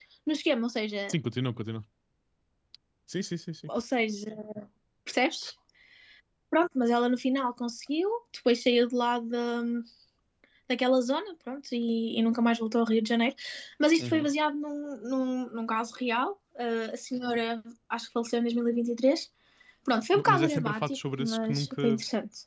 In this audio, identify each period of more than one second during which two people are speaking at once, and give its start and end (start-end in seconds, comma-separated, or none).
20.1-21.8